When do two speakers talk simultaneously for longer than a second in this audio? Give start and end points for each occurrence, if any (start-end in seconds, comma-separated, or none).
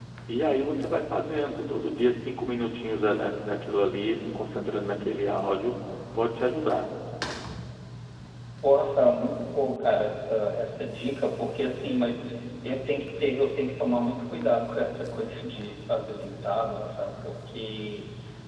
none